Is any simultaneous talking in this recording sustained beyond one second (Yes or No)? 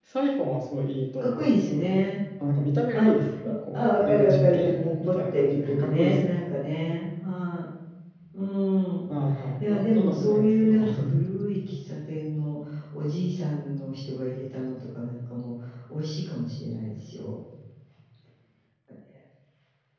Yes